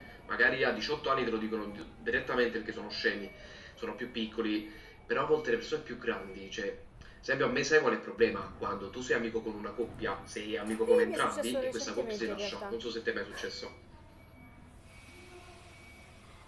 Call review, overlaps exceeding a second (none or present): present